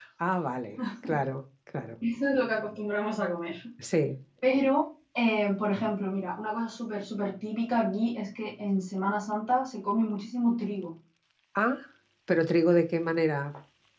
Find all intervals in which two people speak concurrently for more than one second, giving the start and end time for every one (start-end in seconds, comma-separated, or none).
none